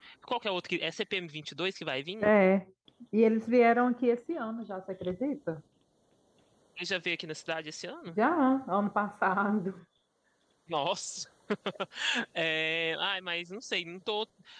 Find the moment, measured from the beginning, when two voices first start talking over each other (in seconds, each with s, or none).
none